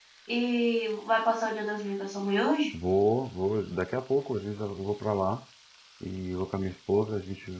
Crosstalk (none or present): none